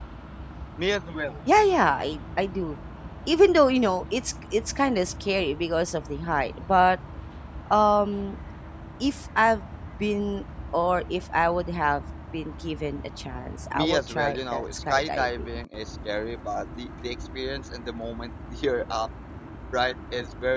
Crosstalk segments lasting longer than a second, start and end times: 13.7-15.5

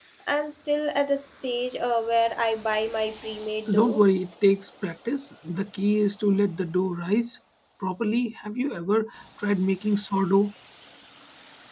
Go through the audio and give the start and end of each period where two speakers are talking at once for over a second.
none

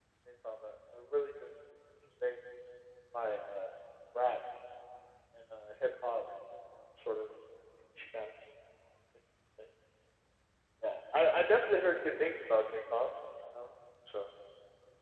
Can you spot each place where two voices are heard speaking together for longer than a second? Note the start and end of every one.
none

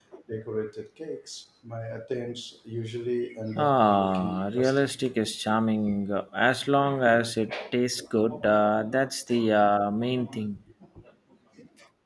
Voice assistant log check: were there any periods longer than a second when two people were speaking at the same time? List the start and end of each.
3.6-4.9

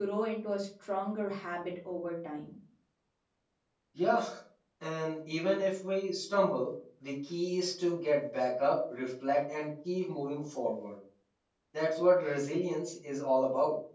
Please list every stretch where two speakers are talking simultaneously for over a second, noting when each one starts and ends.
none

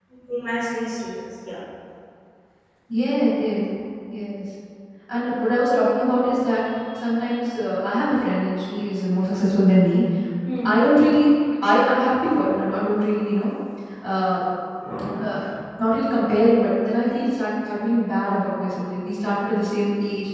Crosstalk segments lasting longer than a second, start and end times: none

